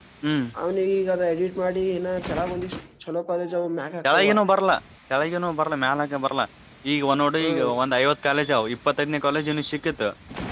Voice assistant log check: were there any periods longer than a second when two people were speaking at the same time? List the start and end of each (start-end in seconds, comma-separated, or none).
none